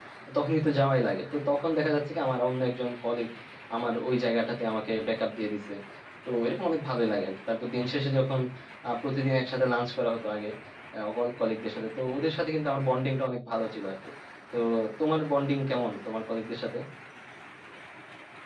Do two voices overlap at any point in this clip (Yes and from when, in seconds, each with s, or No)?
No